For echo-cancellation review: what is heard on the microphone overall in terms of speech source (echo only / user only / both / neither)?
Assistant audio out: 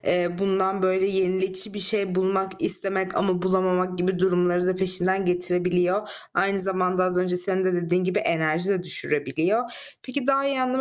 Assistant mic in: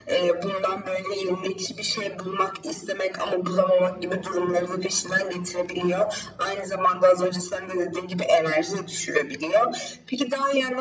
echo only